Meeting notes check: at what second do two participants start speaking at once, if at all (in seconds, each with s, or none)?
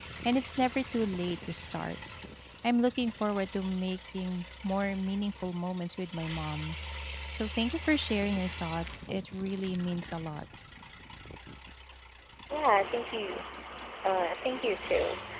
none